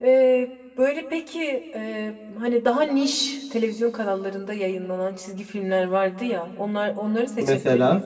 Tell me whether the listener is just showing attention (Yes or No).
Yes